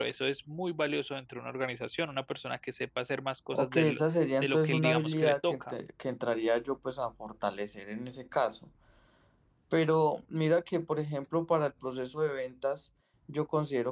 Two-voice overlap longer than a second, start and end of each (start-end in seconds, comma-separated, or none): 4.4-5.8